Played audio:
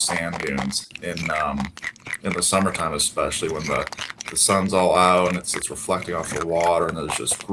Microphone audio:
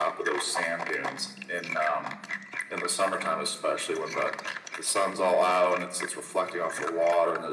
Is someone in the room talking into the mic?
No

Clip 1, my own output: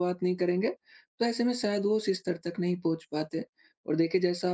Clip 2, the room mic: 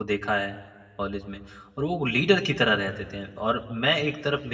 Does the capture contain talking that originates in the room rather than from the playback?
Yes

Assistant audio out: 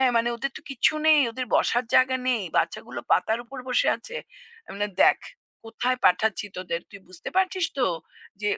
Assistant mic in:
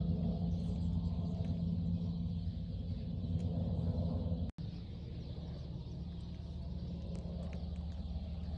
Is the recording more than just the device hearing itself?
No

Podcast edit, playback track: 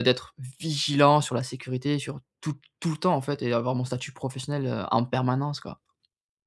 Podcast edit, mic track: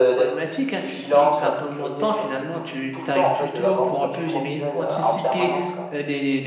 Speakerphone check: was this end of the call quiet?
No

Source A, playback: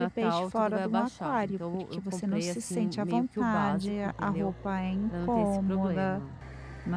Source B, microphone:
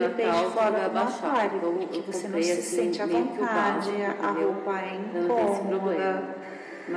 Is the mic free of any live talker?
Yes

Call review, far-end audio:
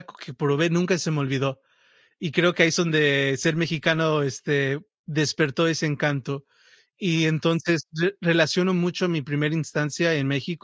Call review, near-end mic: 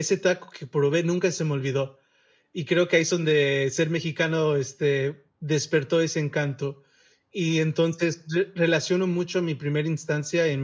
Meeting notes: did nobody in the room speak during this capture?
Yes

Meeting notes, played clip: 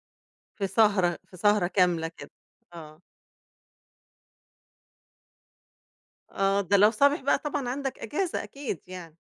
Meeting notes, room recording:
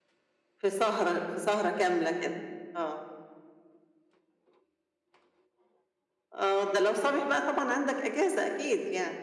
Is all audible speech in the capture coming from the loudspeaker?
Yes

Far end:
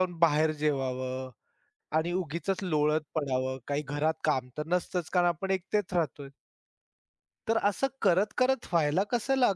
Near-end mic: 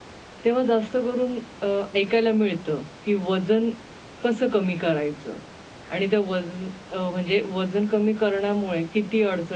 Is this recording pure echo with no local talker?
No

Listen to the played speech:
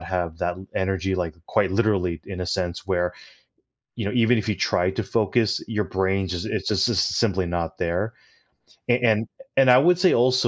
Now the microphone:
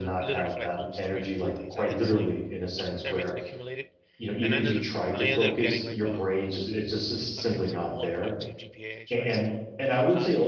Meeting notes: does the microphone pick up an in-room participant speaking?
Yes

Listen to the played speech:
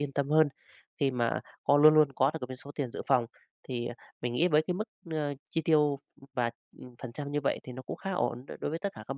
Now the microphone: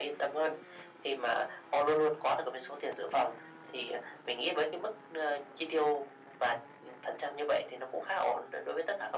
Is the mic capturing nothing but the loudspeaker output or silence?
Yes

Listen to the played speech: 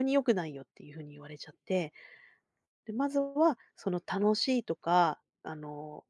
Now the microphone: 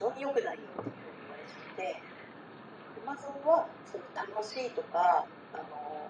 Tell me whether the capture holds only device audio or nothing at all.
Yes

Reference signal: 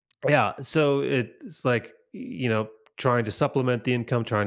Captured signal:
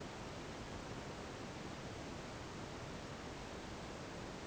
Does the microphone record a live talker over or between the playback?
No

